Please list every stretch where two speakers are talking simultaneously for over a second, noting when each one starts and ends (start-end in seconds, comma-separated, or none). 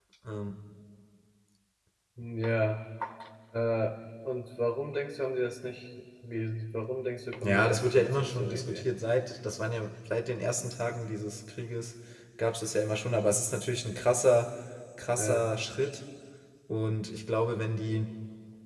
7.4-8.9